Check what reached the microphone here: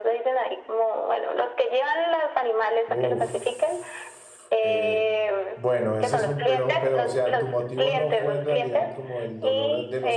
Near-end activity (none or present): present